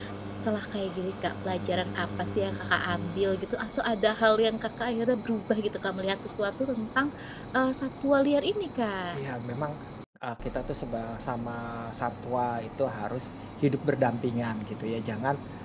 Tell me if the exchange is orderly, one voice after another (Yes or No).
Yes